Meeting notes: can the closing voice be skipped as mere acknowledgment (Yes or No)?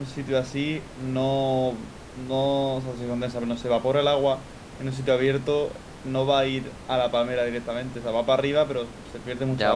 No